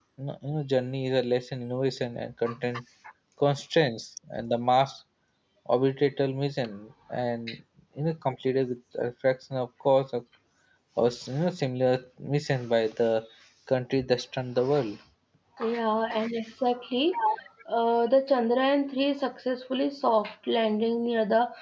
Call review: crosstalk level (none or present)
none